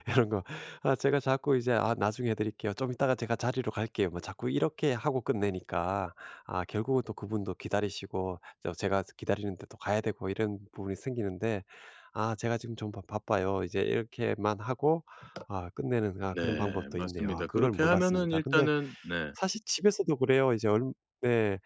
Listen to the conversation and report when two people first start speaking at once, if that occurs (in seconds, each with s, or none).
16.3 s